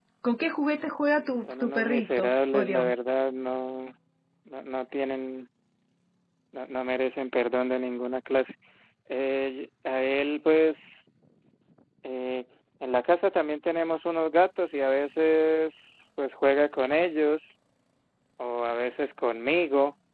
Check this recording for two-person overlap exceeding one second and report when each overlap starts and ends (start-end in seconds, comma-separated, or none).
1.4-2.9